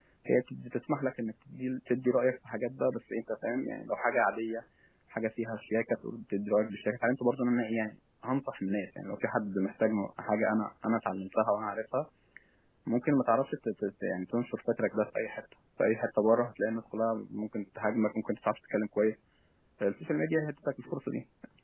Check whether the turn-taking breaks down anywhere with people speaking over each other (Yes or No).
No